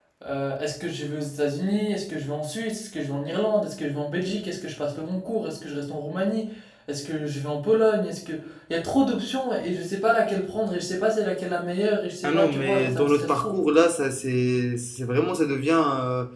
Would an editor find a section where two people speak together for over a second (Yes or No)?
Yes